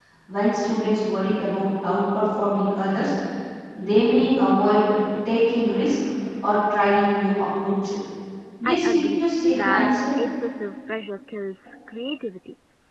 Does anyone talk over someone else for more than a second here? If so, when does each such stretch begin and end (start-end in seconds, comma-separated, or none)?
8.7-9.9